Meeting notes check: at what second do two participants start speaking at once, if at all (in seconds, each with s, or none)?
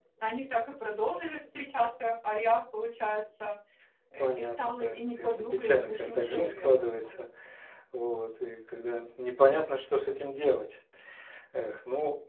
4.2 s